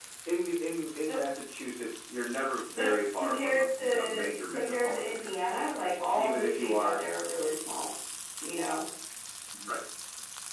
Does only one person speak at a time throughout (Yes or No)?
No